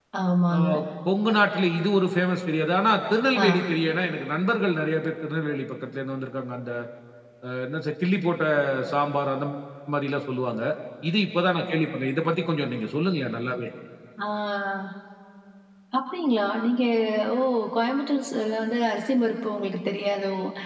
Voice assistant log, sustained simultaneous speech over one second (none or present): none